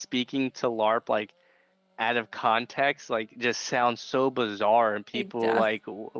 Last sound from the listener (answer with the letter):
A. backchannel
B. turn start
A